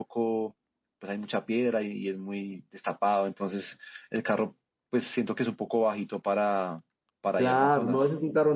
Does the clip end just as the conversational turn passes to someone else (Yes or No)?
Yes